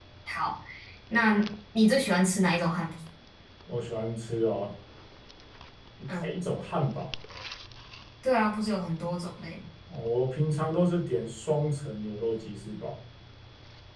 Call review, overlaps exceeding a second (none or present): none